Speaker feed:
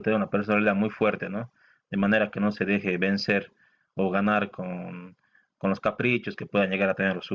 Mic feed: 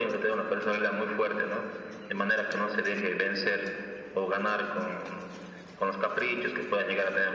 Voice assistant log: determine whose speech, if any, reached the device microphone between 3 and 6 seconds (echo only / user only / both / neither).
echo only